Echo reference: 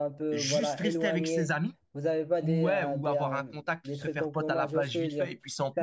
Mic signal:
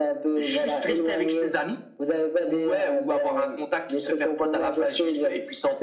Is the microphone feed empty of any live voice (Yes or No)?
Yes